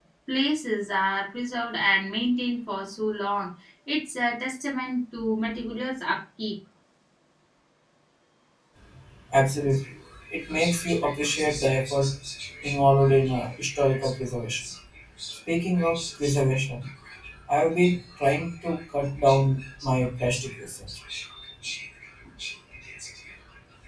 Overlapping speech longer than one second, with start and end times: none

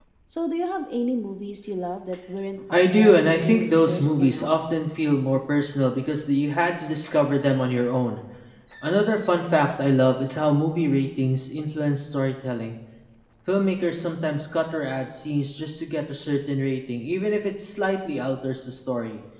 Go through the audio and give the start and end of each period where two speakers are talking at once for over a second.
2.7-4.5

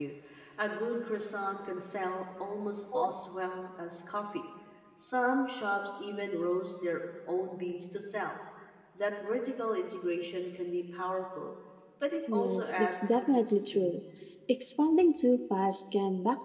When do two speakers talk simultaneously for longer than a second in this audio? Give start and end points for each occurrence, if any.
12.3-14.0

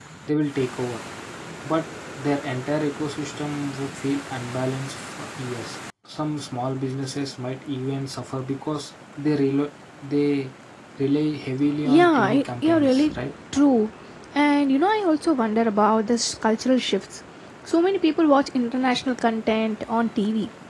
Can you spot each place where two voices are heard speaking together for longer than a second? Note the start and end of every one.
11.8-13.0

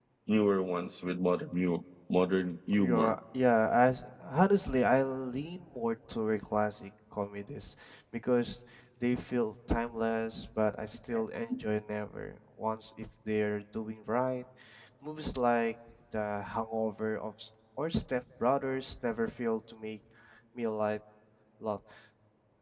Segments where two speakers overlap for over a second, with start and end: none

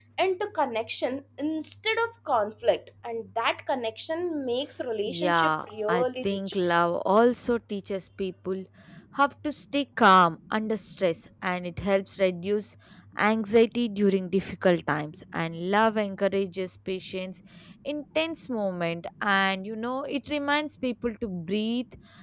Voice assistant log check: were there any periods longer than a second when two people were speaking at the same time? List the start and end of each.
5.1-6.4

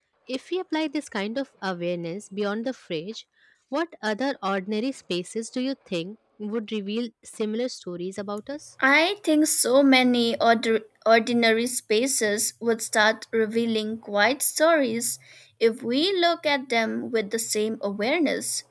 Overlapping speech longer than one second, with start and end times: none

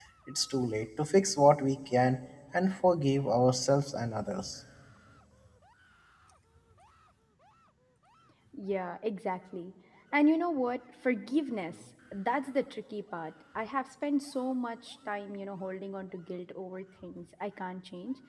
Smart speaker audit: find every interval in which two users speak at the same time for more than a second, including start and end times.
none

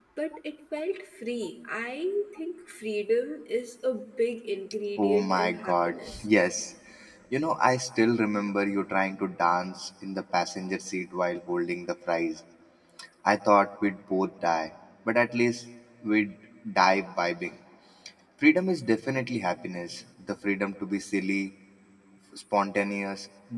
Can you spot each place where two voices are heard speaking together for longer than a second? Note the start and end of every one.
5.0-6.2

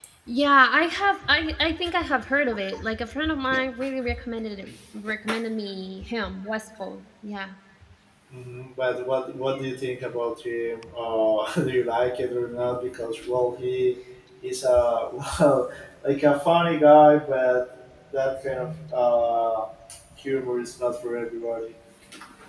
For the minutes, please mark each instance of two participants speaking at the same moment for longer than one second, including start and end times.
none

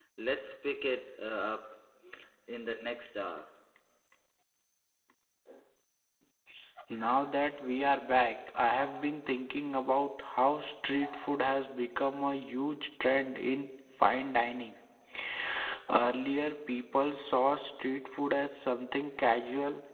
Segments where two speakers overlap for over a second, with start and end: none

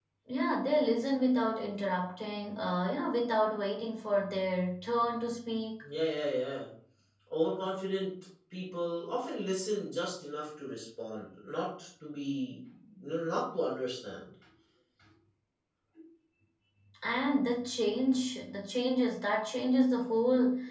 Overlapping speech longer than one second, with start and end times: none

